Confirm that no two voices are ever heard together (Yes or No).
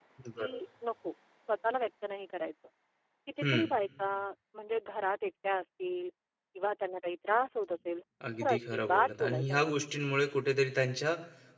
No